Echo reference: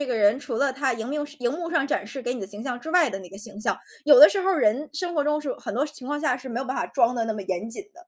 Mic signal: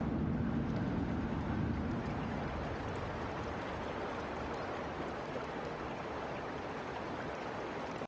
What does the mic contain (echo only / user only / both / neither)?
neither